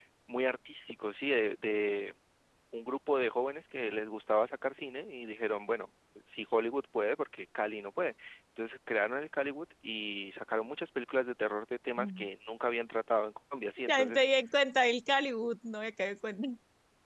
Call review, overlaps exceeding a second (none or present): none